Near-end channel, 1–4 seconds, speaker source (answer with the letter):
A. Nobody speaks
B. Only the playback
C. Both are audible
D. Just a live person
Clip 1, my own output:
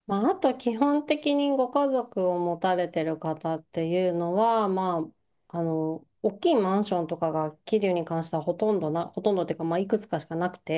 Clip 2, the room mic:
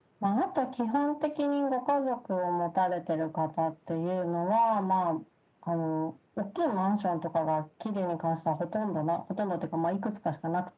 B